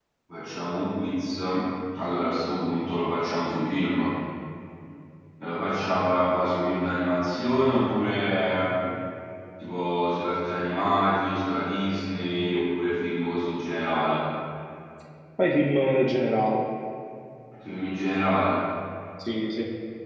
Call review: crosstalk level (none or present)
none